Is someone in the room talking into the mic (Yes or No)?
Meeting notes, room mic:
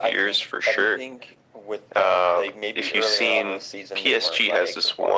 No